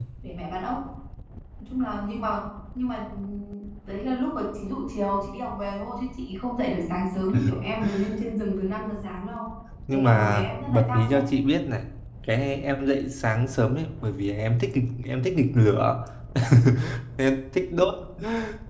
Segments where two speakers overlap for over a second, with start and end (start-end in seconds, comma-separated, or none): 9.9-11.2